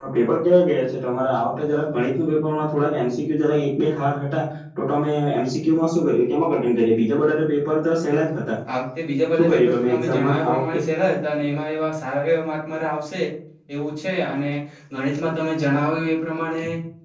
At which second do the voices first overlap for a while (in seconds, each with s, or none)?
9.3 s